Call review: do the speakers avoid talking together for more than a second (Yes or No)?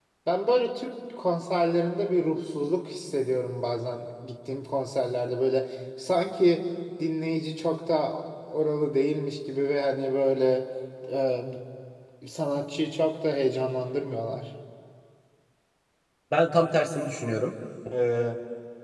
Yes